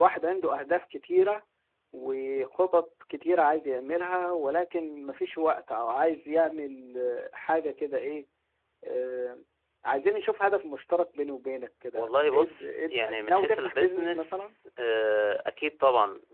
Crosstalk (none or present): present